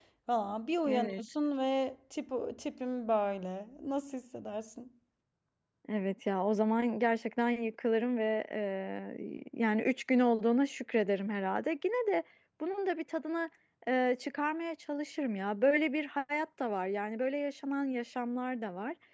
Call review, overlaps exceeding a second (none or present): none